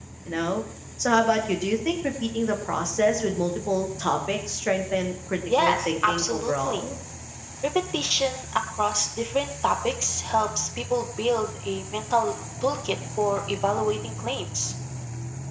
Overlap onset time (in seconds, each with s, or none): 5.5 s